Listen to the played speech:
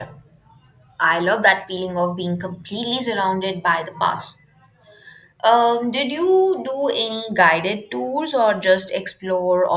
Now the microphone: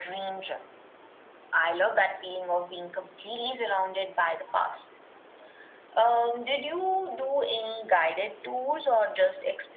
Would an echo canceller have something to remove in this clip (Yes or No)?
Yes